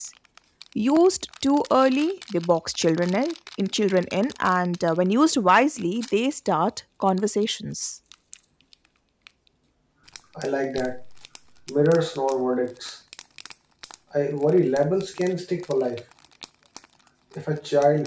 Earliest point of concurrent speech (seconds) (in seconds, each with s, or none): none